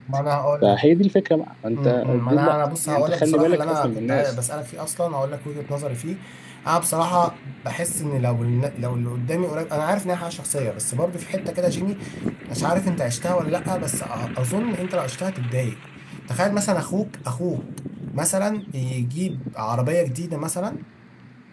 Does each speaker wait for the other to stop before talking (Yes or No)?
No